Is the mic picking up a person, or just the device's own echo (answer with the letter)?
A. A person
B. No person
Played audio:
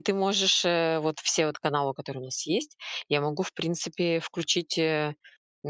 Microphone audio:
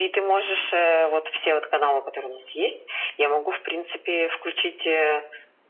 B